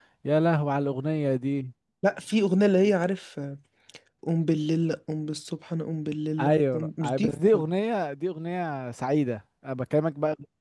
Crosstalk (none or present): present